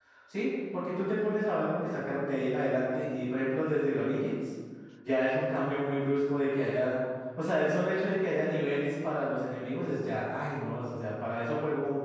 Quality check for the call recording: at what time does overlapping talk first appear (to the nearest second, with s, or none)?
none